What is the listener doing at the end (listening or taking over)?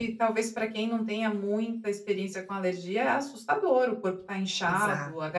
listening